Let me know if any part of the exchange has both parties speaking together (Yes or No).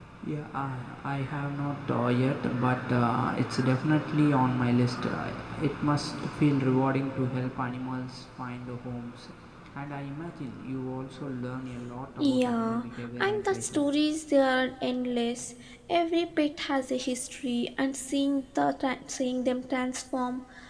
Yes